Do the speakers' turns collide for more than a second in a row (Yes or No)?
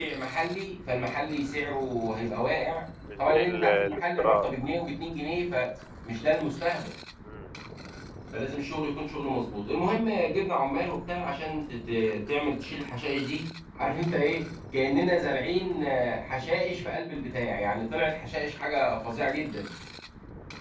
Yes